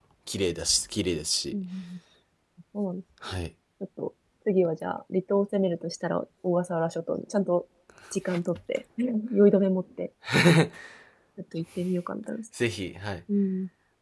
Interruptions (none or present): none